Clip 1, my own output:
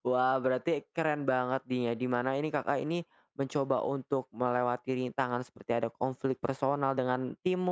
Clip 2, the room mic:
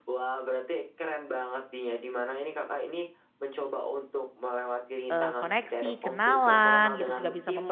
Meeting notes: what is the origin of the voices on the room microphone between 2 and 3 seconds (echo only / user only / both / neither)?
echo only